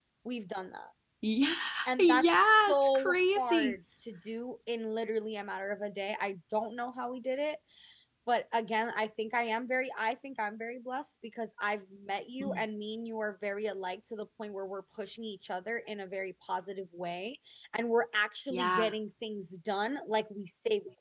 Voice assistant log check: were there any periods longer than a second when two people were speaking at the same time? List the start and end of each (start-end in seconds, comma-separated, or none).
2.0-3.8